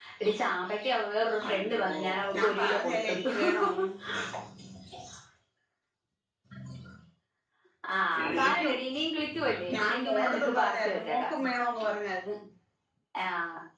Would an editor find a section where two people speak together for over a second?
Yes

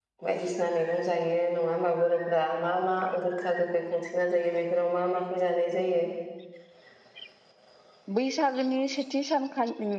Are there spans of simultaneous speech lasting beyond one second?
No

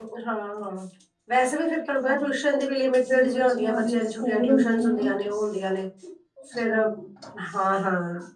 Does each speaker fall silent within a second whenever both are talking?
No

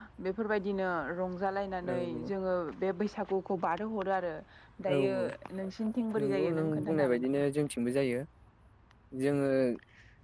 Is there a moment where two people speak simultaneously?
Yes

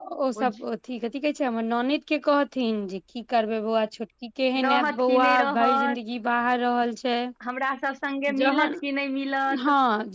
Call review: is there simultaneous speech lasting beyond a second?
Yes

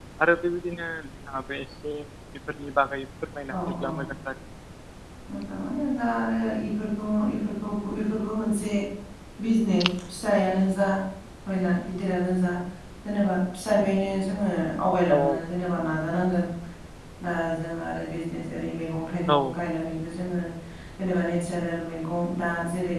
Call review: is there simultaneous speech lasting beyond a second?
No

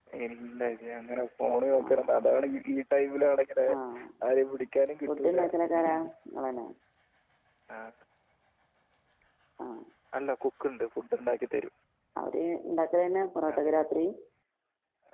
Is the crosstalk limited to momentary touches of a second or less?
Yes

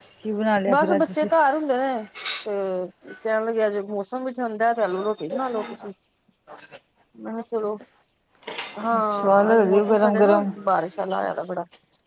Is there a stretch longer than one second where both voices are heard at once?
Yes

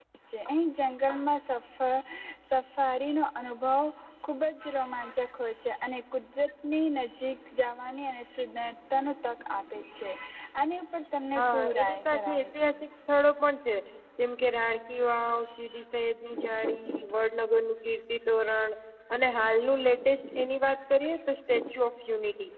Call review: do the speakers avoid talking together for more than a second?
No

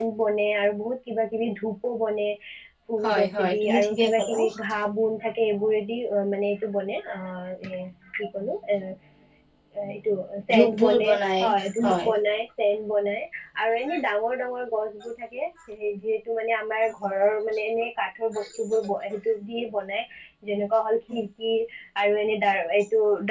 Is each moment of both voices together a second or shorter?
No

